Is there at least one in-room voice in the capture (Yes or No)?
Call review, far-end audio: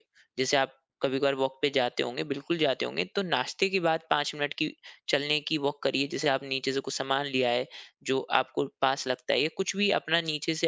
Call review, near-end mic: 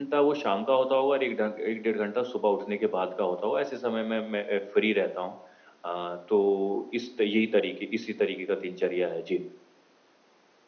Yes